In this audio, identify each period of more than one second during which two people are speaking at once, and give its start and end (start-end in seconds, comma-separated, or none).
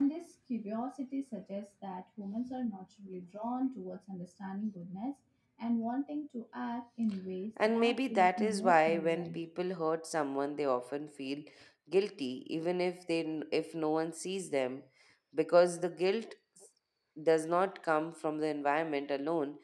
7.6-9.4